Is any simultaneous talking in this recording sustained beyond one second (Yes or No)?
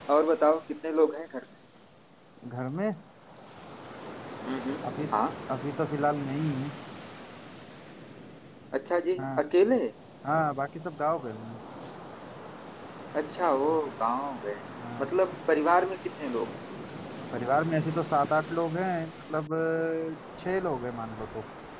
No